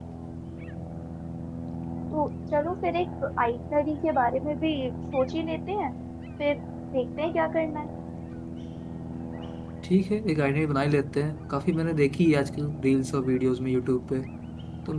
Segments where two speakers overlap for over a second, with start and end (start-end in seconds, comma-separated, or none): none